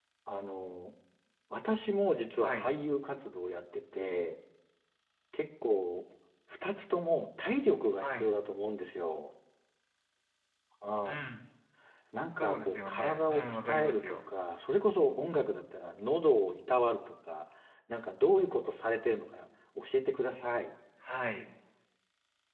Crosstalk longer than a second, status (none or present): present